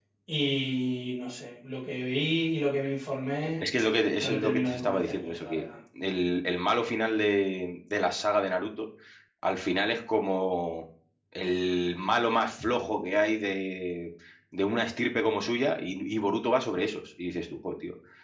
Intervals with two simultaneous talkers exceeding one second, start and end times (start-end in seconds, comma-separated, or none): 4.2-5.6